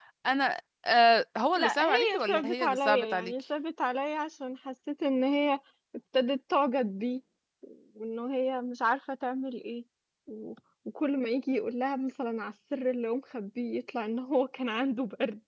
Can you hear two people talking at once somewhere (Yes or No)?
Yes